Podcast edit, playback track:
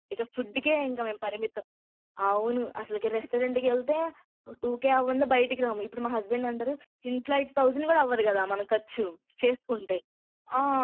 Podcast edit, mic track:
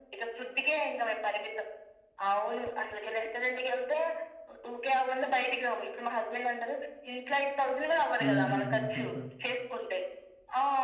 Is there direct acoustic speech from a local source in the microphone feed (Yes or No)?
Yes